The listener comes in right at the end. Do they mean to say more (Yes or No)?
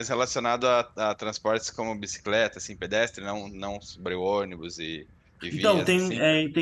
Yes